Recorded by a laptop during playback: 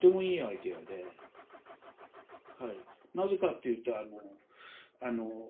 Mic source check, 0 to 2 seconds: echo only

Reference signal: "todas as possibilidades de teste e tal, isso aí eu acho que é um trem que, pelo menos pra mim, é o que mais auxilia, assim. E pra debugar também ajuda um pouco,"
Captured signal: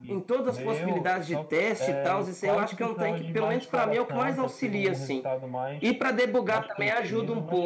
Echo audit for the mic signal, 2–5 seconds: both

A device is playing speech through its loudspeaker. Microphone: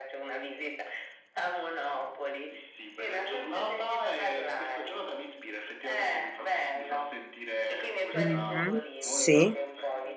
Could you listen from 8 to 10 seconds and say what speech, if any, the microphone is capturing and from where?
both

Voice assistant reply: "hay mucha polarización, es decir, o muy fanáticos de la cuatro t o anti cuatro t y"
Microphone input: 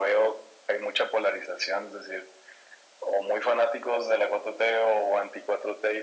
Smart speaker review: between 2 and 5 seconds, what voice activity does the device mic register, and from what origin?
echo only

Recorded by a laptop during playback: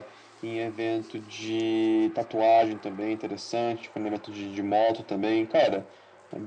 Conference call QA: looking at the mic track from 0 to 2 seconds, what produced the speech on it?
echo only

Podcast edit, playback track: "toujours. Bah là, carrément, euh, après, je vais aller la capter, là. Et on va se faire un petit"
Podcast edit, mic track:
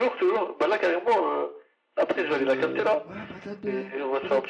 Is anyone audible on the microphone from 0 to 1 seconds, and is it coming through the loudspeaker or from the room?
echo only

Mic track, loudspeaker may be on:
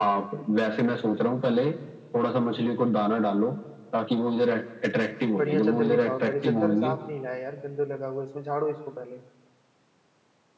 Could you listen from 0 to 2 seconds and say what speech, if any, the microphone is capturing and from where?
echo only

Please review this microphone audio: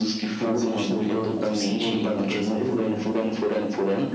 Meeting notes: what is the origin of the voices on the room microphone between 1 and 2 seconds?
echo only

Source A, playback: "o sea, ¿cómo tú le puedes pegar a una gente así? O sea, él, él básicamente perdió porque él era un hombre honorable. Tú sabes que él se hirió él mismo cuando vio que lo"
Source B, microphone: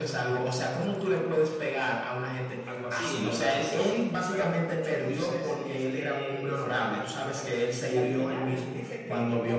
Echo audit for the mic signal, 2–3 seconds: both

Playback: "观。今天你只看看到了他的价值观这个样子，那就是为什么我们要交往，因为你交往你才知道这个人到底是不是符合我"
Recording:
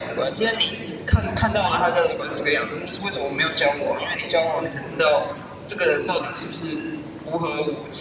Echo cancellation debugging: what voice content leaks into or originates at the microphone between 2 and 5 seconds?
echo only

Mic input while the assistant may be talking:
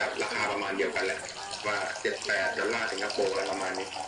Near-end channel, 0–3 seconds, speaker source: both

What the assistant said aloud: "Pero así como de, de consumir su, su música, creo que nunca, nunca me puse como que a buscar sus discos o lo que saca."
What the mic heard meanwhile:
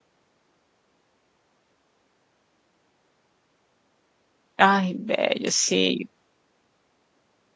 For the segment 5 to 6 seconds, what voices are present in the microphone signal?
user only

